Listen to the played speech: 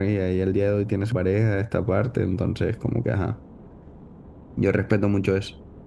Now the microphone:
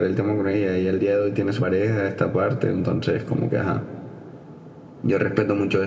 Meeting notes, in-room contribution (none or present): none